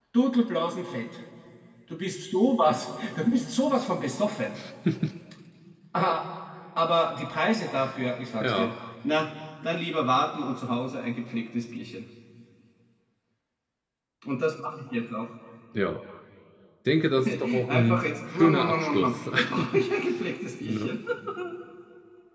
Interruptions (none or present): present